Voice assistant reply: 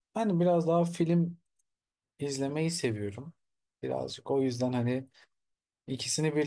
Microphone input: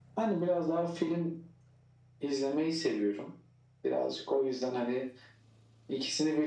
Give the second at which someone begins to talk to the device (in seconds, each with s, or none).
none